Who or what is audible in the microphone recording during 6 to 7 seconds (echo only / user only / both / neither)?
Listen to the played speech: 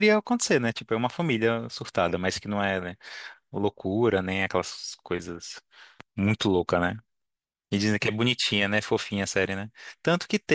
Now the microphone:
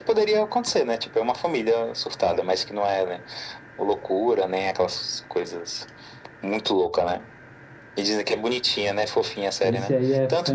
echo only